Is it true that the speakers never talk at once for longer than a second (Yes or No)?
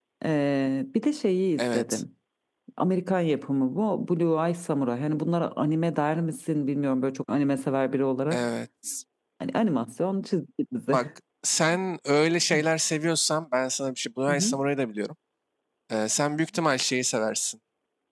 Yes